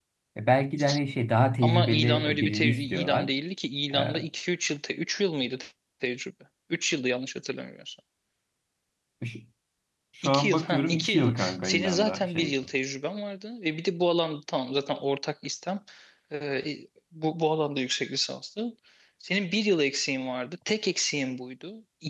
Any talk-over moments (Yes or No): Yes